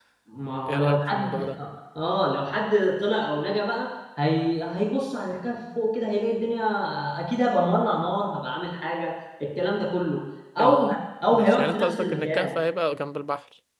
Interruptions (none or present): present